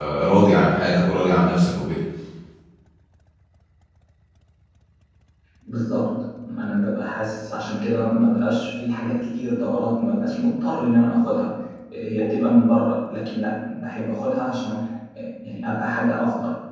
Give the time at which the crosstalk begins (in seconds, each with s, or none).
none